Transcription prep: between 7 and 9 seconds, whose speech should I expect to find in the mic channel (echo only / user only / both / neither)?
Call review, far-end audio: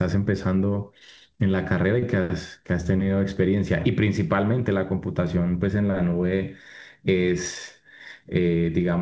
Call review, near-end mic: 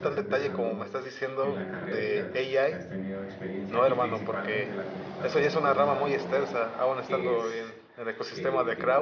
both